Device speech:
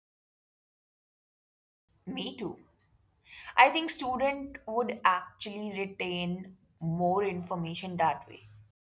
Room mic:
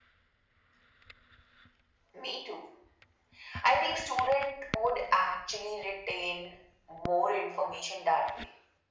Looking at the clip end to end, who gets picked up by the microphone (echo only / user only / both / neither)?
echo only